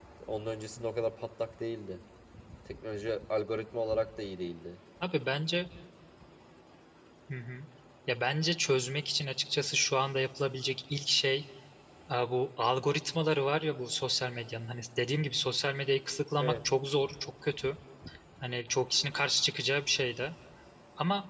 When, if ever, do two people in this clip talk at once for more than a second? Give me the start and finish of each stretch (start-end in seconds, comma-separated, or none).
none